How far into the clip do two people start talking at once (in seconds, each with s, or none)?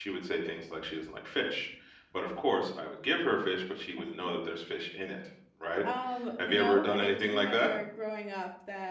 6.4 s